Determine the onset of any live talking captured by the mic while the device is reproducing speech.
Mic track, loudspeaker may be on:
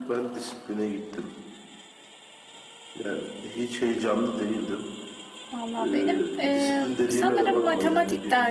5.5 s

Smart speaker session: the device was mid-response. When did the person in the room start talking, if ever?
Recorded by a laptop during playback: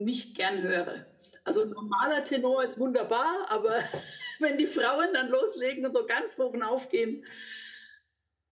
none

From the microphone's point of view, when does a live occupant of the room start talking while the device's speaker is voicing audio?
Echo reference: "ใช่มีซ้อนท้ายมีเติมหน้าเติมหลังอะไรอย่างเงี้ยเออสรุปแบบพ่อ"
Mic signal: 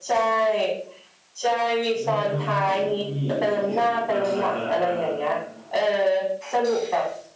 2.0 s

